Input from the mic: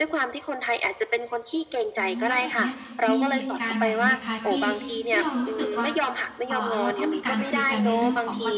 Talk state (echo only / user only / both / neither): both